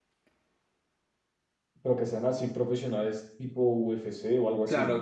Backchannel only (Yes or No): No